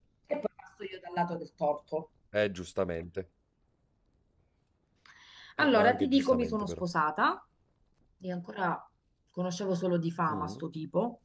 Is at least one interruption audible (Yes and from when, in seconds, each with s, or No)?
Yes, from 5.6 s